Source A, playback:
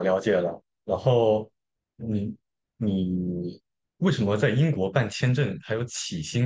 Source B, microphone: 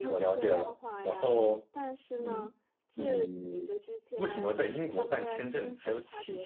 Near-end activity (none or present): present